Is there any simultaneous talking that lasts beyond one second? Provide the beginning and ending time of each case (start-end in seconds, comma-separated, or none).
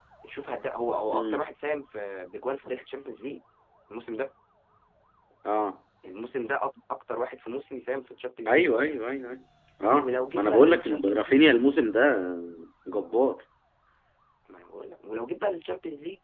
10.0-11.4